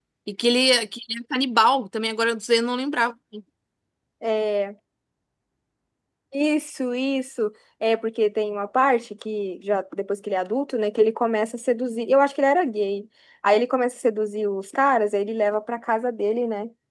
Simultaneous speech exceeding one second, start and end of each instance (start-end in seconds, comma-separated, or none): none